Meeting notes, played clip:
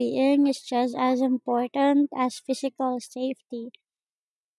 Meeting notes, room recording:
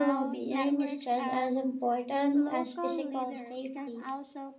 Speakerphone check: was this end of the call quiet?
No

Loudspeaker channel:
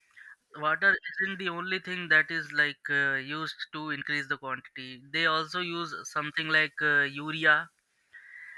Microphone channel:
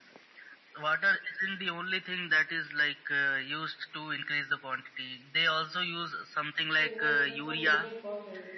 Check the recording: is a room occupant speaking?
Yes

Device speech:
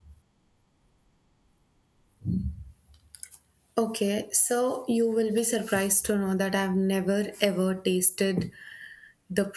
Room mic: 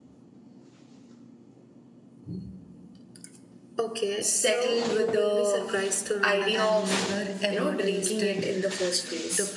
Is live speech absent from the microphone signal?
No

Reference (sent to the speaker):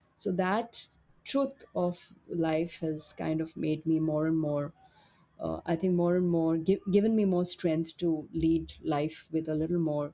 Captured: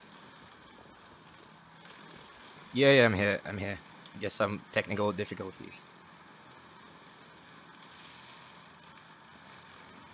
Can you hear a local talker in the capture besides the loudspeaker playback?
Yes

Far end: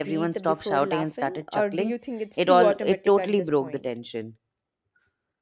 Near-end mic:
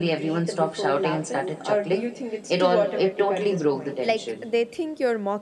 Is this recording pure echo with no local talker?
No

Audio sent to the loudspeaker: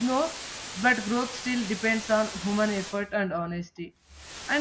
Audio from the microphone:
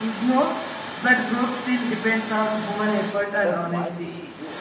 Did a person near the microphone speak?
Yes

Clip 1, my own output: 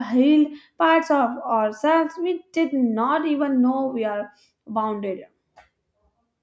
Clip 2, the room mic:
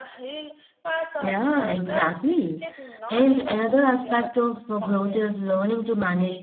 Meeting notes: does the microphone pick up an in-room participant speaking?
Yes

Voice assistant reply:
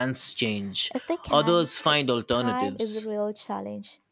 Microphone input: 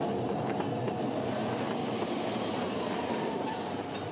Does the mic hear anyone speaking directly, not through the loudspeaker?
No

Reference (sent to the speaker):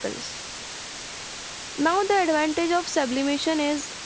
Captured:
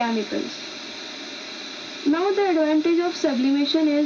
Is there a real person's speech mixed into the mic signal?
No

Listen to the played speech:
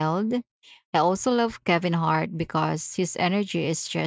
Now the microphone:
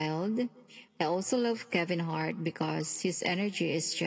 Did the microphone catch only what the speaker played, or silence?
Yes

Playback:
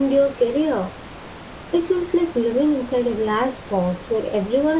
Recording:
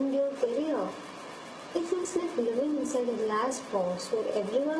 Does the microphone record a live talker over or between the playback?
No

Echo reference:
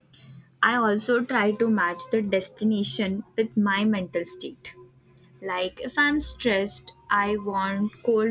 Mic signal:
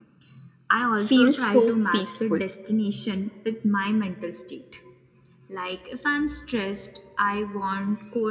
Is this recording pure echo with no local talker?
No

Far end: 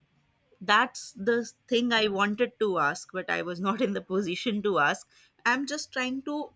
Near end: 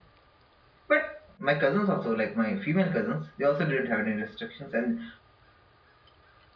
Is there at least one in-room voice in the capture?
Yes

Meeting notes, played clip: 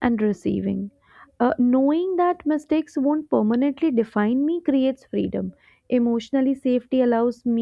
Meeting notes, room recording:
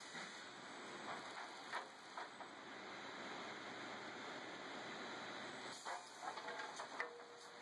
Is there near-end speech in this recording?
No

